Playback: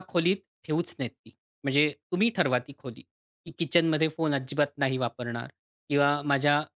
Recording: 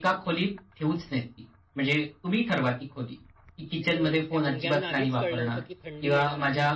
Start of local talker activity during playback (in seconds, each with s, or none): 3.9 s